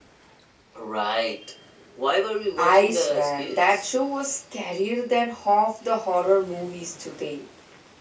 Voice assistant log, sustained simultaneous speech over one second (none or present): present